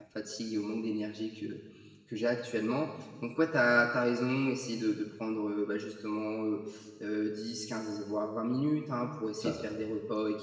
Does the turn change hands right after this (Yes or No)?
No